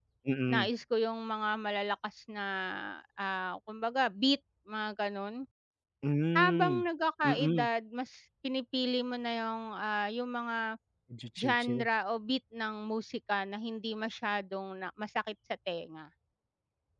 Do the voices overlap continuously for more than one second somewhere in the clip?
No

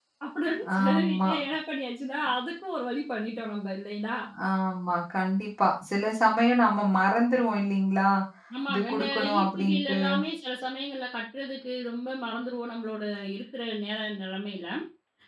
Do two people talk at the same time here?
Yes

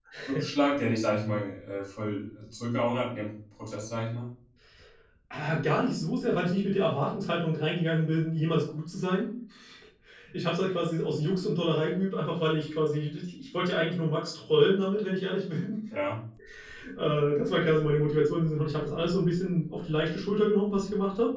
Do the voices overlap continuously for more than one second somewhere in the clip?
No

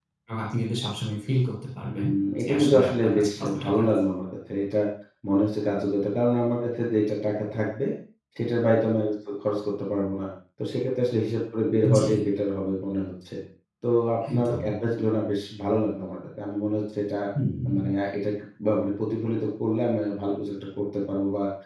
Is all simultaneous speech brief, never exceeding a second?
No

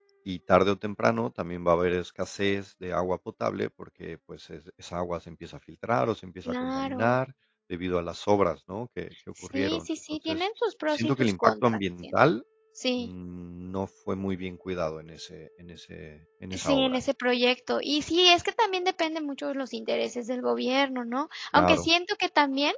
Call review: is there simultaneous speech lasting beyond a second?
Yes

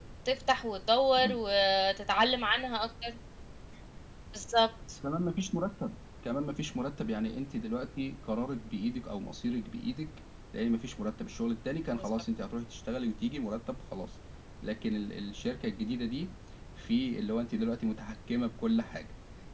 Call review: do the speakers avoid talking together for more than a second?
Yes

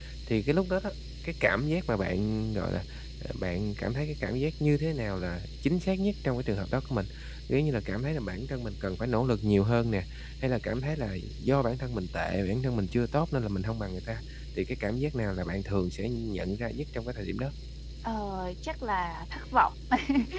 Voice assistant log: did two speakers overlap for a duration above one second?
No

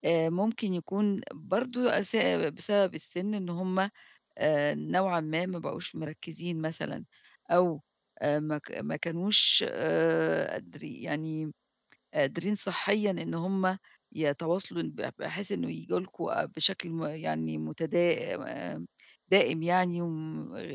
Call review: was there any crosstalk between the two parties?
No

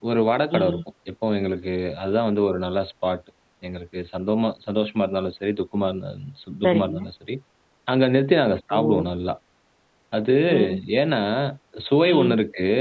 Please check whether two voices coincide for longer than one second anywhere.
No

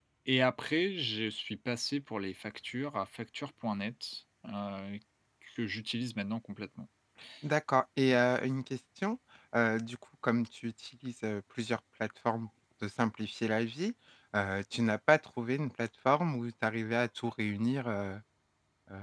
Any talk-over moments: No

